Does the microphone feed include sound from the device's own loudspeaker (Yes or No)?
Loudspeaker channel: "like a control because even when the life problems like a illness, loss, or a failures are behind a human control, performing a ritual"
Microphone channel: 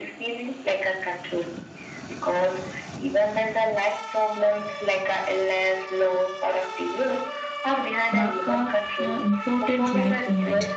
Yes